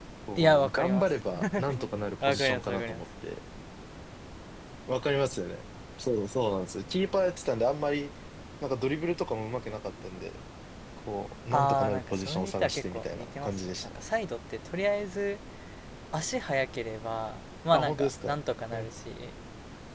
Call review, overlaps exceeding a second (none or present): present